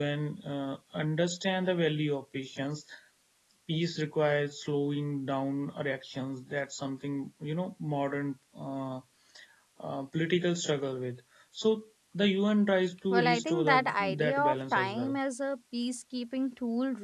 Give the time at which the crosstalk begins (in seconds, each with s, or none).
13.1 s